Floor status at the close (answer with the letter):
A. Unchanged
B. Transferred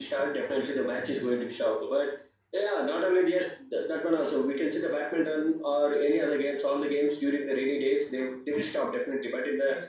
A